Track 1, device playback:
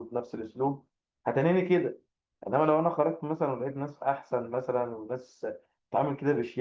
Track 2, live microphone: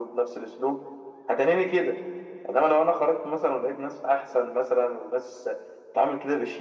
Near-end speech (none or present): none